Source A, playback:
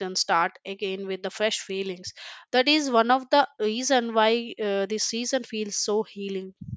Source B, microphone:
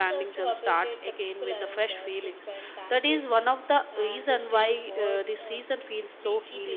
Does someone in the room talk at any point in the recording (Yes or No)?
Yes